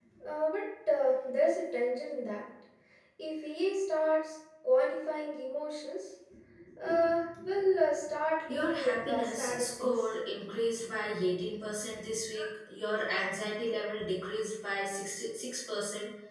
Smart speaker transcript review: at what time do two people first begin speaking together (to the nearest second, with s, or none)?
8 s